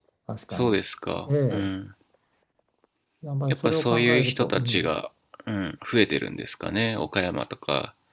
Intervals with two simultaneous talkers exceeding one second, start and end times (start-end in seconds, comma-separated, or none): 3.5-4.9